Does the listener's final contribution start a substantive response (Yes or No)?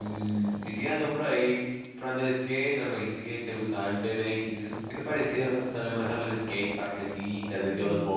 Yes